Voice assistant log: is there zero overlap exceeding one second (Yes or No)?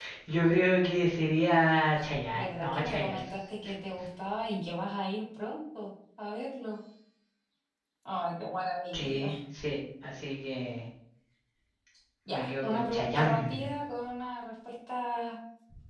No